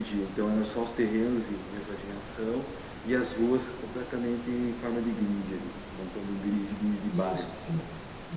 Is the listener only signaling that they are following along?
No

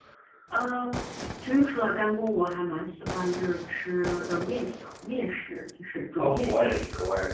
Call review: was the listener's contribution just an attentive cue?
No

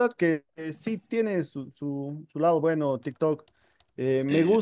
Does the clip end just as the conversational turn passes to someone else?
No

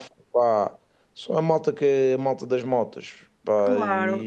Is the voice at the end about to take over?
Yes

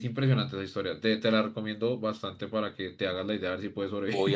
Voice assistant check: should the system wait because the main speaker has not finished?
No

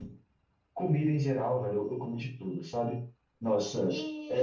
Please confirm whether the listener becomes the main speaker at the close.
No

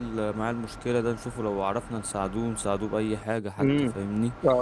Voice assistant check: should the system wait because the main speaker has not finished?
No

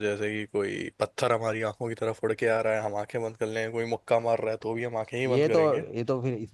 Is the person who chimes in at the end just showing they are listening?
No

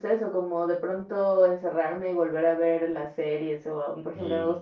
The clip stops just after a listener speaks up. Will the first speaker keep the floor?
Yes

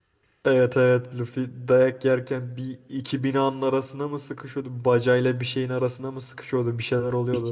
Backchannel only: No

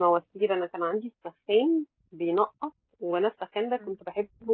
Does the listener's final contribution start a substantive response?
No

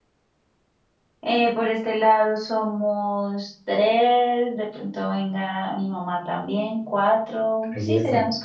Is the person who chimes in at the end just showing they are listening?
No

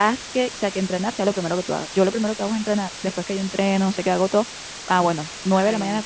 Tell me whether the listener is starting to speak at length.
No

